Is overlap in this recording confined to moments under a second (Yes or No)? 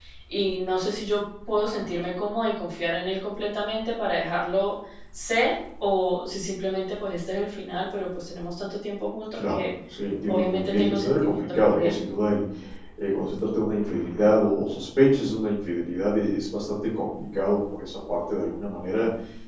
No